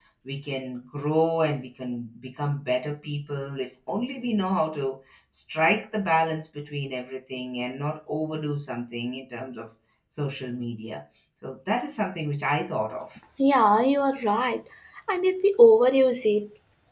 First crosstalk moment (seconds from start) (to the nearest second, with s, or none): none